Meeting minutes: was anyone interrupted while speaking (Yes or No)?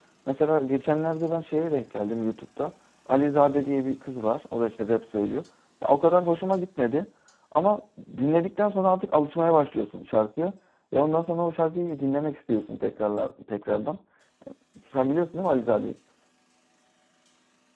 No